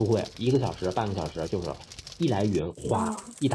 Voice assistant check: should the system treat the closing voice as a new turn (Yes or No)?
No